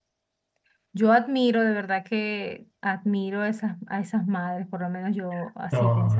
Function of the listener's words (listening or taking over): taking over